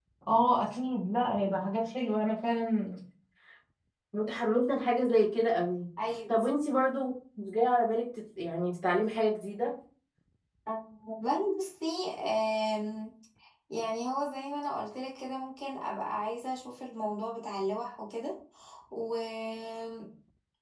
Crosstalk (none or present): none